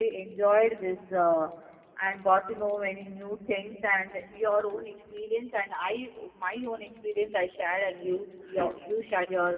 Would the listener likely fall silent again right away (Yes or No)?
Yes